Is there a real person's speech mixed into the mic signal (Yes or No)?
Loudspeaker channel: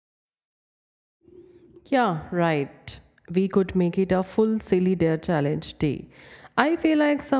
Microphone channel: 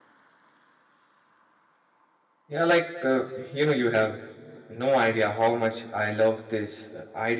Yes